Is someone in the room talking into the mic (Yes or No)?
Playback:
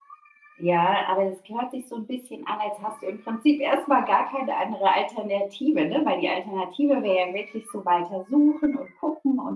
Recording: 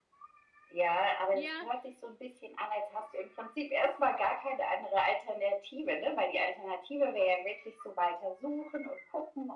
Yes